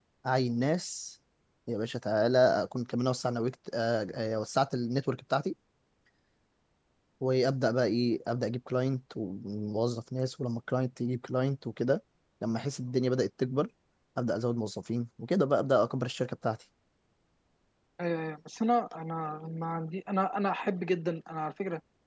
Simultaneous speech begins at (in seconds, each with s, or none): none